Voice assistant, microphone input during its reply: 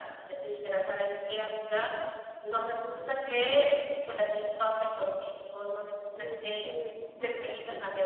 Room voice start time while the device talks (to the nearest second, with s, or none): 6 s